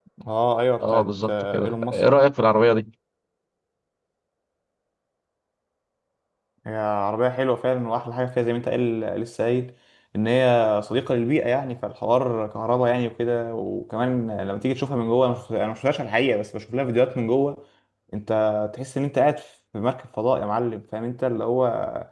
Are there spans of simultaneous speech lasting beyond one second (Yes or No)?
Yes